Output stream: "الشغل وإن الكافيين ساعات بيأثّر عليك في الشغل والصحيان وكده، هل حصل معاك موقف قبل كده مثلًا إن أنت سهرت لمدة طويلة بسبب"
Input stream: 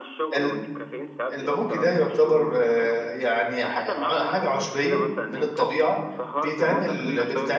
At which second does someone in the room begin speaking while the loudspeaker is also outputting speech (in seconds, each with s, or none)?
0.3 s